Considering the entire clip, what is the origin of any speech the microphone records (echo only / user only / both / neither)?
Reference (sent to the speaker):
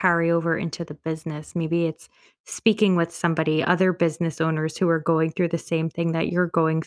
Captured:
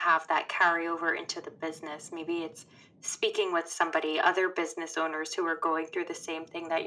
echo only